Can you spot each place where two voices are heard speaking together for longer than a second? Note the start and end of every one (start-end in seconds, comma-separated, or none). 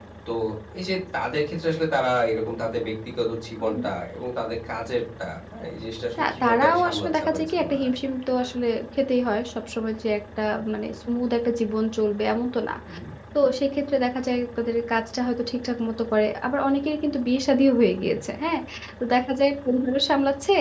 6.2-8.0